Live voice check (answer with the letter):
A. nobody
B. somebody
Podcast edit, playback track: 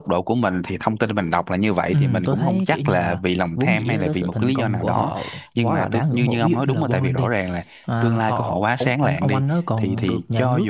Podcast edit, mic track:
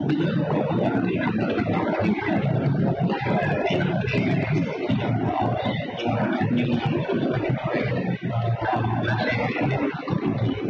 A